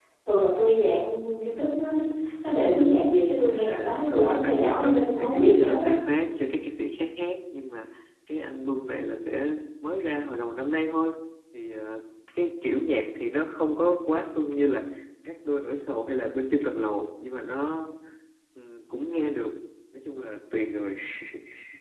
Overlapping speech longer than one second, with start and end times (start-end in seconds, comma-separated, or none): 3.5-5.9